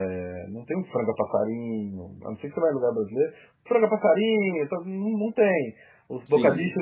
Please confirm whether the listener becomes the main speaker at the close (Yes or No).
No